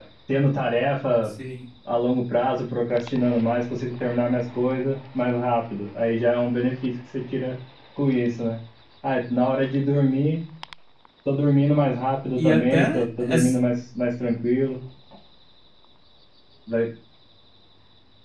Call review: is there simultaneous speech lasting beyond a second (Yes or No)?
Yes